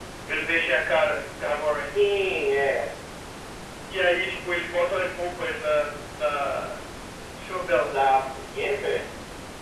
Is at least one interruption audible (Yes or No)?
No